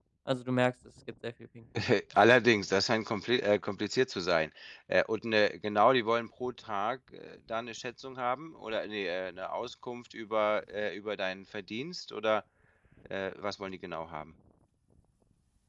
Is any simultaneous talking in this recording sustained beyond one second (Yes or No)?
No